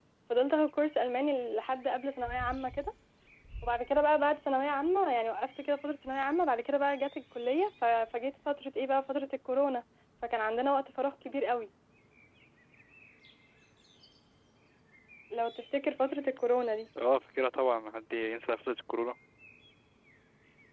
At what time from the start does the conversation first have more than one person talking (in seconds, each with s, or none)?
none